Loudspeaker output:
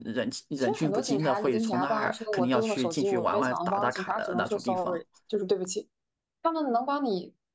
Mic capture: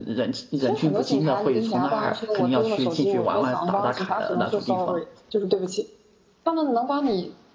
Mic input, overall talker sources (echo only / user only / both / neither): echo only